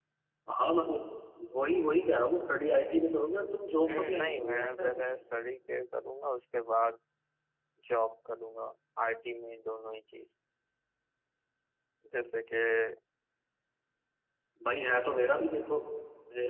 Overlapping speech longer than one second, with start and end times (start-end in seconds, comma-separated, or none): 3.8-5.0